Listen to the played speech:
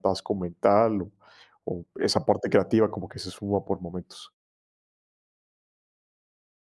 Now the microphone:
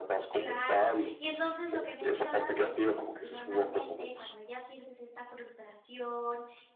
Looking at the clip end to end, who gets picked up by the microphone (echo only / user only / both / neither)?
both